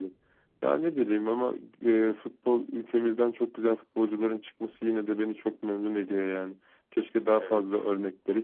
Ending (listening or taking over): listening